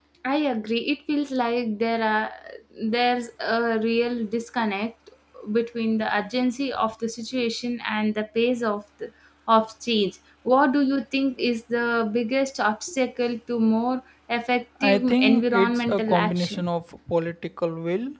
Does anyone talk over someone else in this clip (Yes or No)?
Yes